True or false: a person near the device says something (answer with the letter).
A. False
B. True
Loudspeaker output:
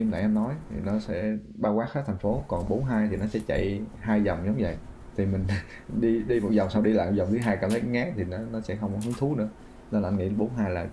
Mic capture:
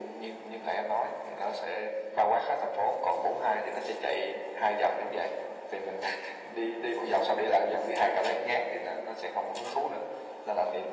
A